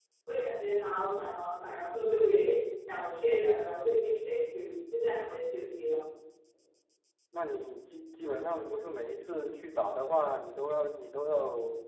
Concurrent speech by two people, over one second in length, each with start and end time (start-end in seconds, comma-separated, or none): none